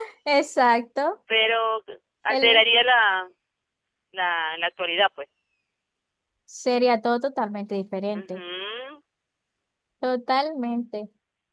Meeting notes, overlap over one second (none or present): none